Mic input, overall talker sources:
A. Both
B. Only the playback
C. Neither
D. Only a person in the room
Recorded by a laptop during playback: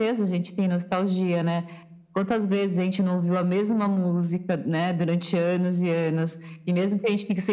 B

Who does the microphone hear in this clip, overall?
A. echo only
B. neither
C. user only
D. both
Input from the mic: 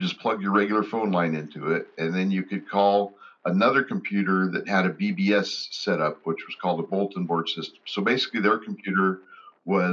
A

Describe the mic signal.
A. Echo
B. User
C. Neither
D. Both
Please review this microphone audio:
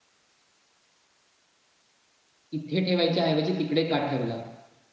B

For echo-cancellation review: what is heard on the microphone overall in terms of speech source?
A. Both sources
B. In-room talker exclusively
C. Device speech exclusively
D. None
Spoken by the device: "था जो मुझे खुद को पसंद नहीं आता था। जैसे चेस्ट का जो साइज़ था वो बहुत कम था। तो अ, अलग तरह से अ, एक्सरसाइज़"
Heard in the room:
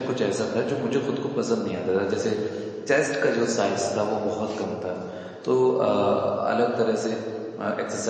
C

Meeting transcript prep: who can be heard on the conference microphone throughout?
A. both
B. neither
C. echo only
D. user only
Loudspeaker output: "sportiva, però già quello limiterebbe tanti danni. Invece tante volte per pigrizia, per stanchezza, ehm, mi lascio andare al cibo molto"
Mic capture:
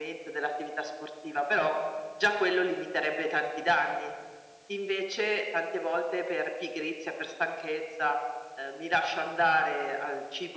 C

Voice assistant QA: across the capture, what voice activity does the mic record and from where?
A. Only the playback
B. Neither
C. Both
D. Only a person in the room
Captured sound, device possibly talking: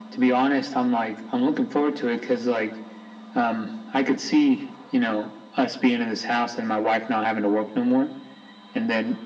A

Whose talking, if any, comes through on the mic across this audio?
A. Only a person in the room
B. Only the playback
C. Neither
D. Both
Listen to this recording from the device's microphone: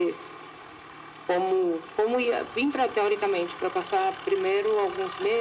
B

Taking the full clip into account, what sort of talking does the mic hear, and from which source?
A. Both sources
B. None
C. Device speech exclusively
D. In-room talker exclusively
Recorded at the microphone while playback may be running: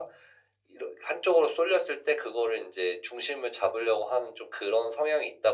C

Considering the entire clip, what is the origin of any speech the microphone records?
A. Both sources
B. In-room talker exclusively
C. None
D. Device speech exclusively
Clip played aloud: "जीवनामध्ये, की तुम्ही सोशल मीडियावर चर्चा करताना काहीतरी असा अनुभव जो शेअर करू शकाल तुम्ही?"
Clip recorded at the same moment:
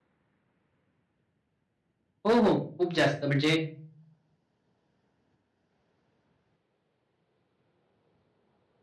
B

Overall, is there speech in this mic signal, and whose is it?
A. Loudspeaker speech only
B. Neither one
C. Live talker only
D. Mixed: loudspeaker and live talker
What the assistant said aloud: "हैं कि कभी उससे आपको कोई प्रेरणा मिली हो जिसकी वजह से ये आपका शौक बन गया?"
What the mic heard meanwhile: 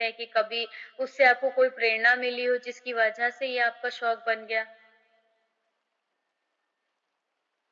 A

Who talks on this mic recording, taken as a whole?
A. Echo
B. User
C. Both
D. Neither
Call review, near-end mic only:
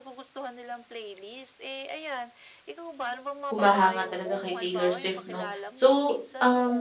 C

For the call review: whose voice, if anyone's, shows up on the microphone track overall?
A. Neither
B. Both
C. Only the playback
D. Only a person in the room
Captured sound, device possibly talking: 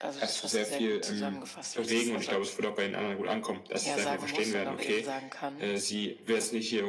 C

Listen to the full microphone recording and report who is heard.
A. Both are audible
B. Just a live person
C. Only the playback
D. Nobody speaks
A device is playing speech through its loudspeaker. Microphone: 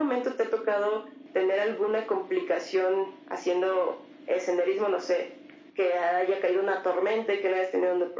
C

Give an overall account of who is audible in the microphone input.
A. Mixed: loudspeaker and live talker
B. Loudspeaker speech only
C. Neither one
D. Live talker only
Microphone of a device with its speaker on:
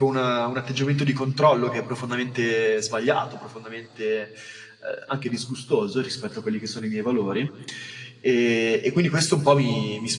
B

